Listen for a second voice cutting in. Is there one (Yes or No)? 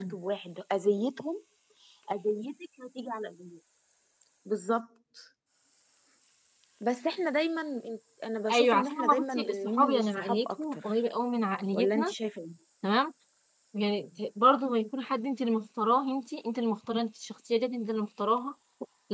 Yes